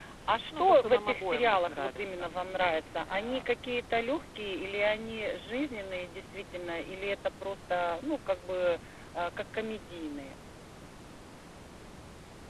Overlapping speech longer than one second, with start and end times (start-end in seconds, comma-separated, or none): 0.6-2.3